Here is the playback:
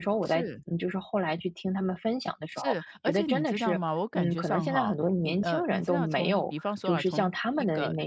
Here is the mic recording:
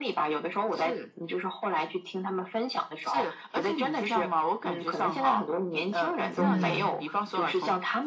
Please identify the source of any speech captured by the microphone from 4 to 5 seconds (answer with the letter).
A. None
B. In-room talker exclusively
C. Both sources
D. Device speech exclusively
D